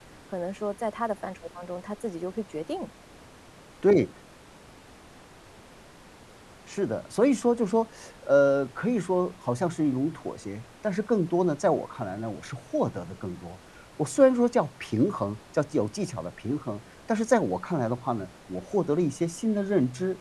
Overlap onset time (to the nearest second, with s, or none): none